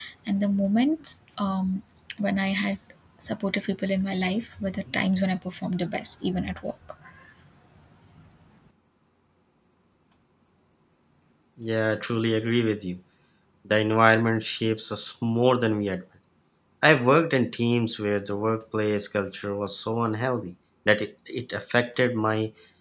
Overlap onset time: none

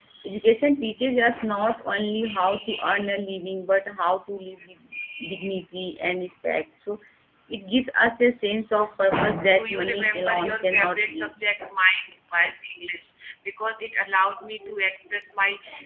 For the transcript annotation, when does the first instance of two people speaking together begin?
9.5 s

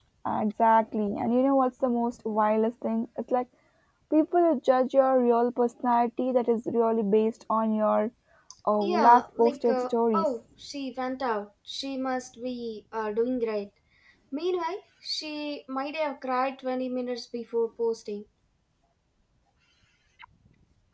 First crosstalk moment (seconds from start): 8.8 s

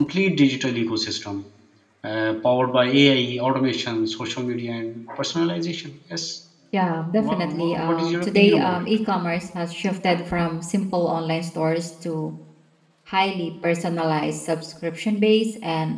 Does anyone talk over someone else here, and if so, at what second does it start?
7.2 s

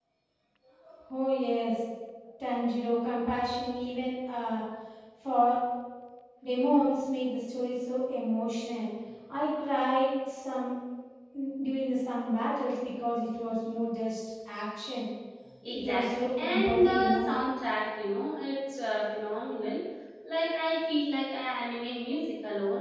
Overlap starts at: 15.7 s

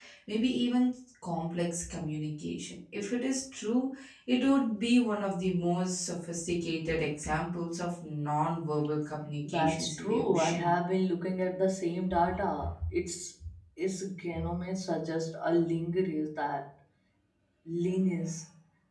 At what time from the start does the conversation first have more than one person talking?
9.5 s

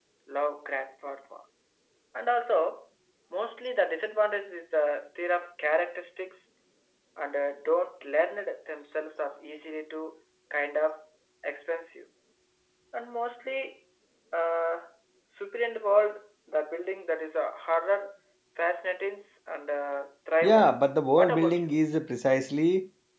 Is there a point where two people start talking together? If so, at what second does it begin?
20.4 s

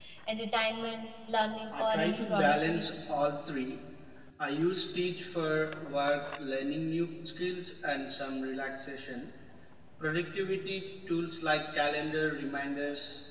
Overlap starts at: 1.7 s

